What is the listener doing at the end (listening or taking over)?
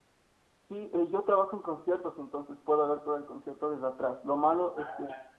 listening